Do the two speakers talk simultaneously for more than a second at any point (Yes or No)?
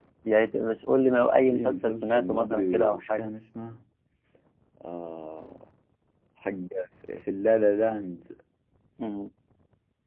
Yes